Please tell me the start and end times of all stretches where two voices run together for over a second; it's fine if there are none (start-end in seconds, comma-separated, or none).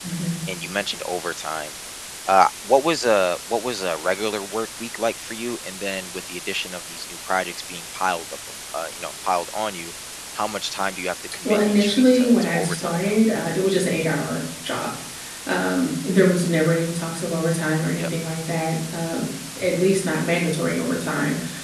11.4-13.2